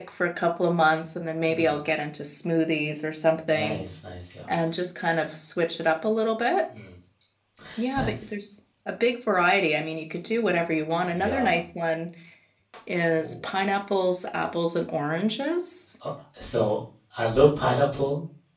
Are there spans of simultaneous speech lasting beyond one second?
No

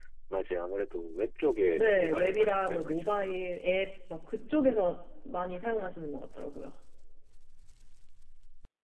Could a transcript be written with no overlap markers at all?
No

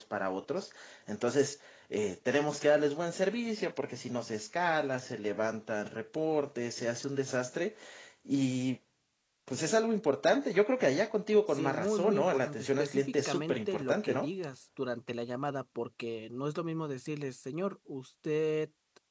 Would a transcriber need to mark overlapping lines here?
Yes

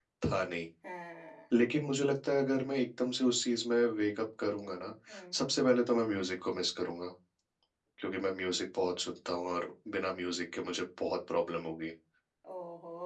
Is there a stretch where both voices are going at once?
No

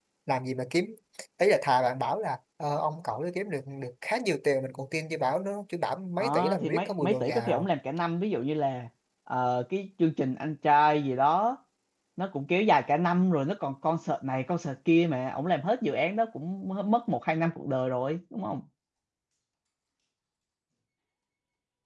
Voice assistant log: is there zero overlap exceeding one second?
No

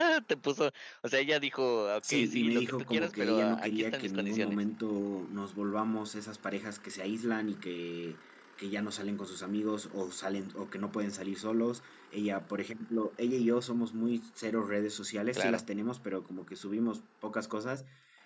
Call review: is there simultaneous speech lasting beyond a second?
Yes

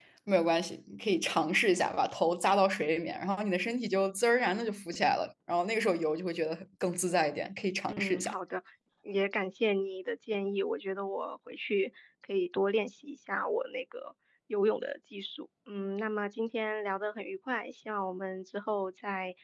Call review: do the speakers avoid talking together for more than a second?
Yes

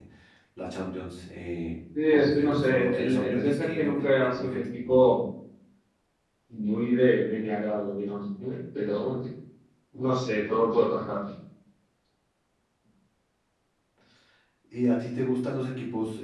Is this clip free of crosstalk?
No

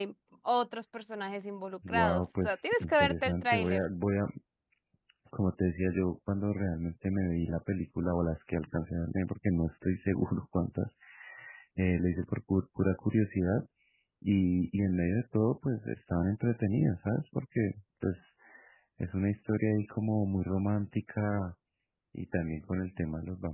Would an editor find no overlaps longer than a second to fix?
No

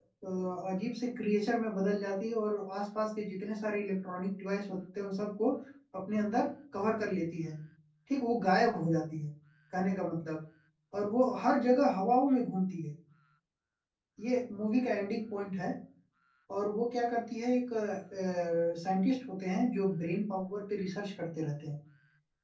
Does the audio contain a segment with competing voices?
No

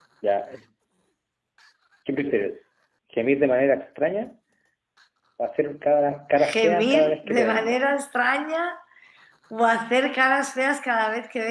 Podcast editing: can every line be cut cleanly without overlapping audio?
No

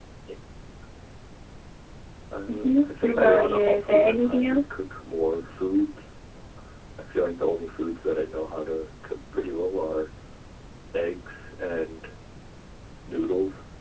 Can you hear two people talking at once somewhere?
Yes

